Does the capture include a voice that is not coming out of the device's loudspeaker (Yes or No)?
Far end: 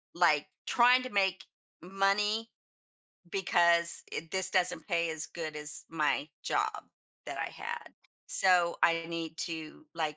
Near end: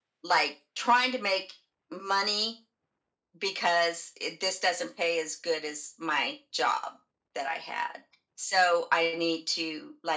No